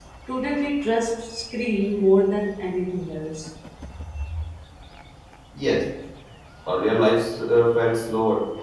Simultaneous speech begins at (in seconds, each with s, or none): none